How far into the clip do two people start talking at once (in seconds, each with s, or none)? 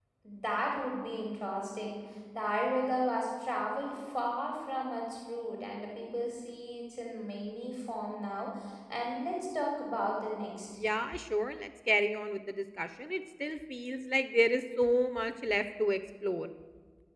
none